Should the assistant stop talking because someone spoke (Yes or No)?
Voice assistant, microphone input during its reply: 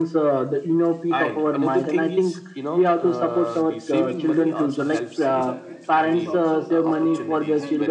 Yes